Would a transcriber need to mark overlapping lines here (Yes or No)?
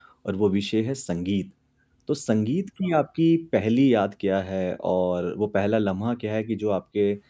No